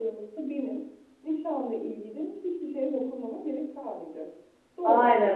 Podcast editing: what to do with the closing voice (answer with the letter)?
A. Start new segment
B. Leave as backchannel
A